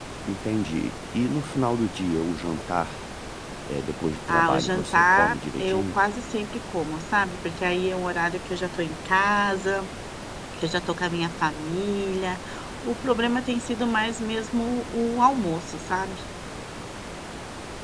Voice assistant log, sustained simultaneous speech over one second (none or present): present